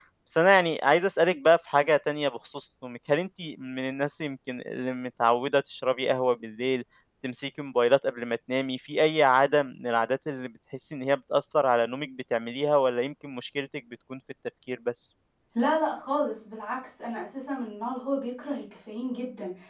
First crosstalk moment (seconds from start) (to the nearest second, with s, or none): none